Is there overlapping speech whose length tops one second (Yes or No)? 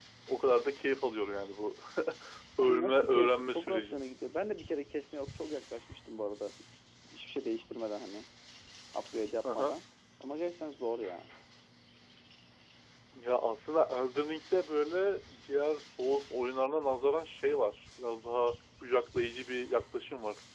Yes